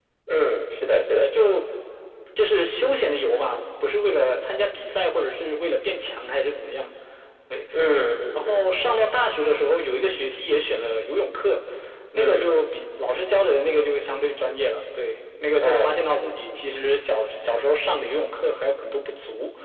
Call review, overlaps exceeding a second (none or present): none